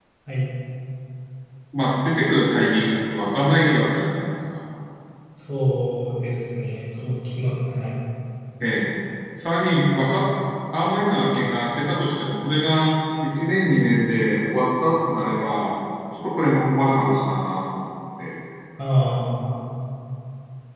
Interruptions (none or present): none